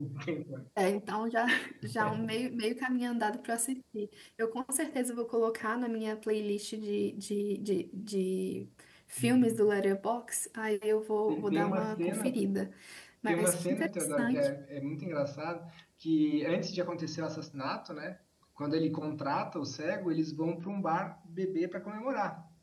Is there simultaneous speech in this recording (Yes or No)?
Yes